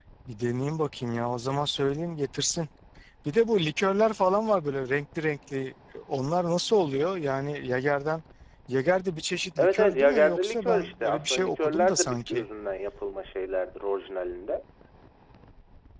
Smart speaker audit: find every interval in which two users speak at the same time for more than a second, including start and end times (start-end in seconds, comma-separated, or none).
9.6-12.4